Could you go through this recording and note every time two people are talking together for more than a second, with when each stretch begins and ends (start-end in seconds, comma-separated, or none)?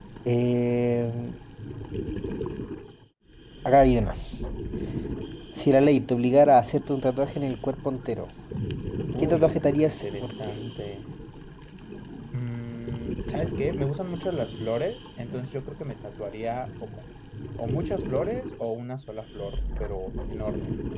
9.2-10.5